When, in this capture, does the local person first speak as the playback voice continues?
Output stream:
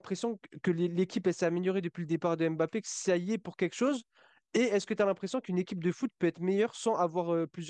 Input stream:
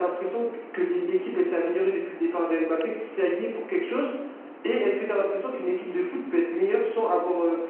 none

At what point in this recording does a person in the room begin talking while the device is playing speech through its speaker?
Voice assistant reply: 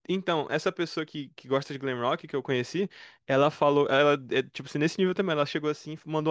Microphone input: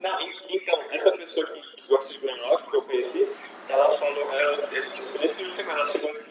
none

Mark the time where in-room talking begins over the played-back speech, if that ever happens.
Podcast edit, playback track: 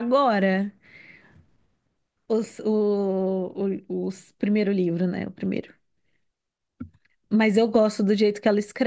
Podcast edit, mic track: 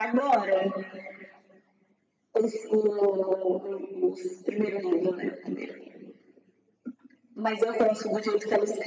none

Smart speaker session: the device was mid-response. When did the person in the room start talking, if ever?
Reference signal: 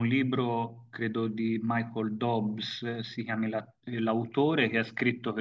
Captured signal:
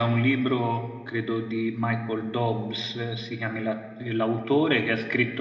none

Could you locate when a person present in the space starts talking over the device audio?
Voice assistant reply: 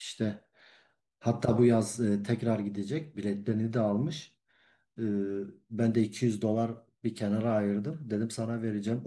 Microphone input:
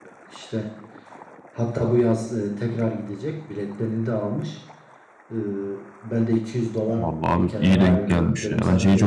6.9 s

